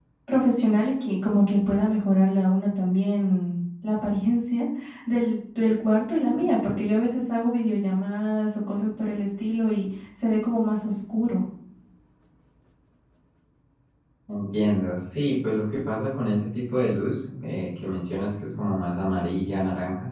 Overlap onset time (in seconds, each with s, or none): none